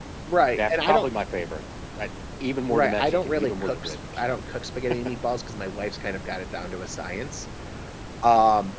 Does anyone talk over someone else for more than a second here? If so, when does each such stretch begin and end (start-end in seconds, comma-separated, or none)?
2.7-4.0